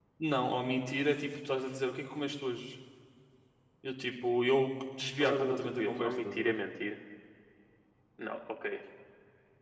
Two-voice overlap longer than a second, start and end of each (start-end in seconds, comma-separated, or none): 5.2-6.6